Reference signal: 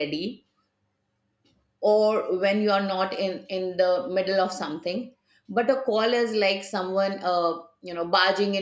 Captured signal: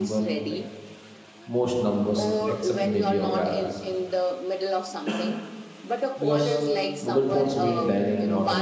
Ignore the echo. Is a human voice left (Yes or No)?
Yes